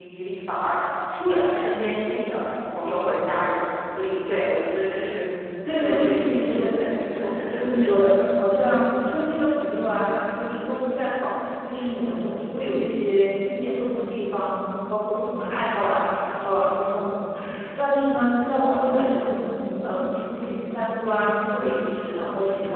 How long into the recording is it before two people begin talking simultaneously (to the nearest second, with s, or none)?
6 s